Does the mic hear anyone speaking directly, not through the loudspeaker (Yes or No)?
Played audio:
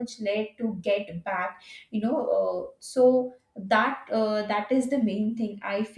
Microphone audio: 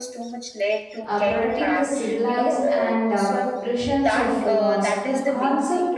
Yes